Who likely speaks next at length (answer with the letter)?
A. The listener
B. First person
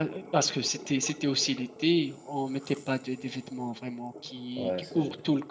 B